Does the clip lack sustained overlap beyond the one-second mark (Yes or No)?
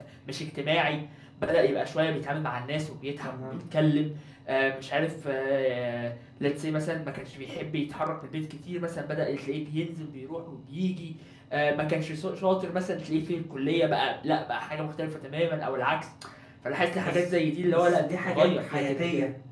No